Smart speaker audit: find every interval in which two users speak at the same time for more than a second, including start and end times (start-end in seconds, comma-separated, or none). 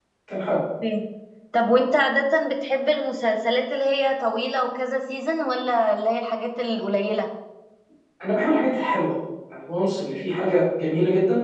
none